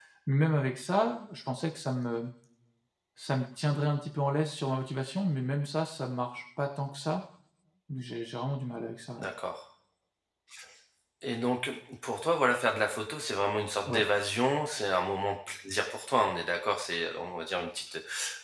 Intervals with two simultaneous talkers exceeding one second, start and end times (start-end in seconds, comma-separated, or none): none